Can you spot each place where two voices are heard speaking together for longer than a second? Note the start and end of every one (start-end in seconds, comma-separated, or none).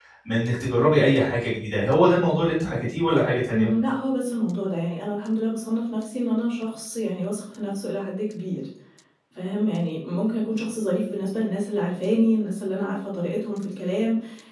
none